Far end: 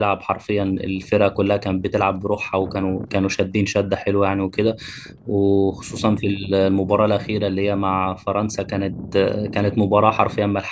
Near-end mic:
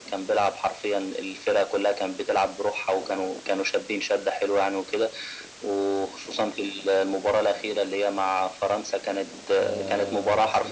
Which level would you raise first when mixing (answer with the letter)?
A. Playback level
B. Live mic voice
B